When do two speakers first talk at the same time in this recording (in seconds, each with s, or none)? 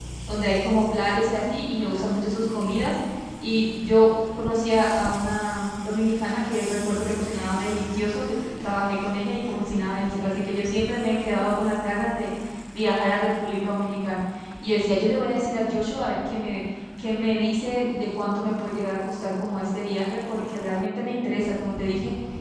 none